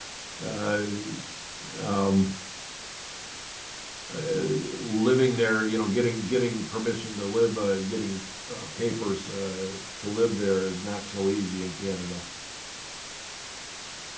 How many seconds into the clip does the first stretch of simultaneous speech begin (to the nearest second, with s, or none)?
none